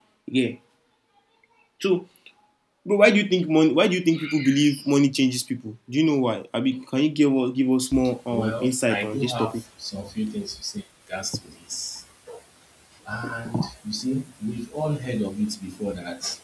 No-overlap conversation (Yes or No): No